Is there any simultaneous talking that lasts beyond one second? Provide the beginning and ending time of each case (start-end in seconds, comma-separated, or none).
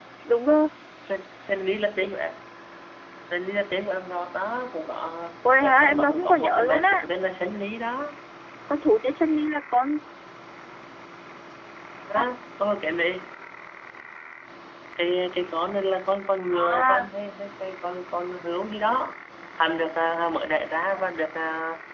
5.6-7.0